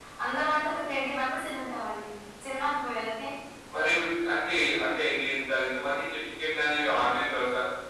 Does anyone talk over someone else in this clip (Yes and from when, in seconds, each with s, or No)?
No